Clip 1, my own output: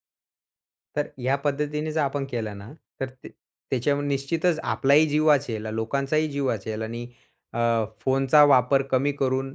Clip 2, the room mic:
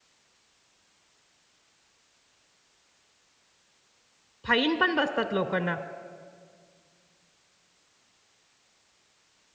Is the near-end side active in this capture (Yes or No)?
Yes